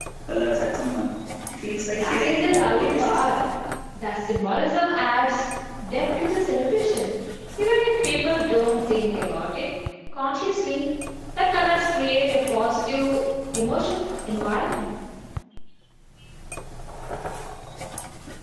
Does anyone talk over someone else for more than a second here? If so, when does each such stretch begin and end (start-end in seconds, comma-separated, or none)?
1.9-3.2